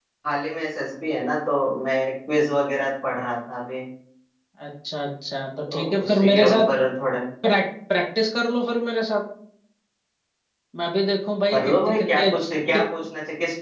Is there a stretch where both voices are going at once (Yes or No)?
Yes